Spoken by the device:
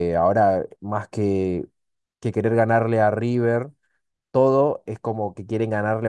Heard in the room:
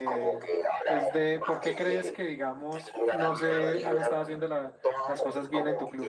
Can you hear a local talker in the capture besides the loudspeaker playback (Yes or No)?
Yes